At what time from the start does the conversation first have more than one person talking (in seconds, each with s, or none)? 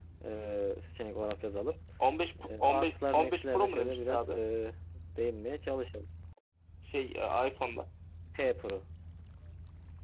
2.6 s